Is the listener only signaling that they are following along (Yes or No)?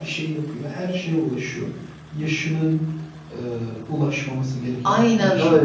No